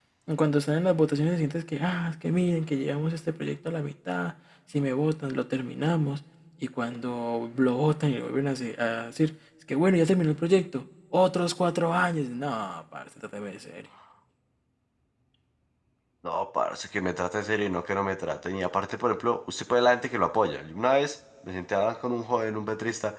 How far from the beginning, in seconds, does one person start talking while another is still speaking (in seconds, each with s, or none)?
none